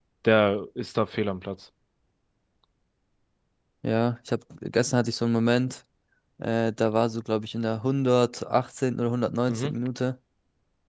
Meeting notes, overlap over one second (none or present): none